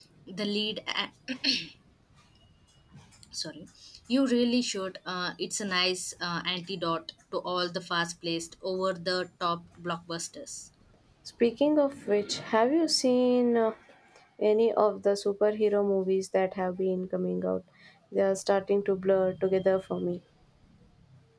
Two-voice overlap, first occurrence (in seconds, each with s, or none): none